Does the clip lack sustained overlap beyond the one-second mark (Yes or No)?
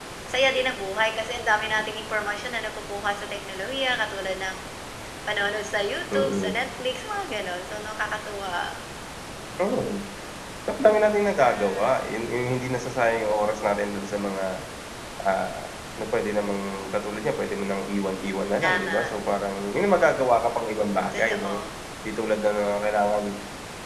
Yes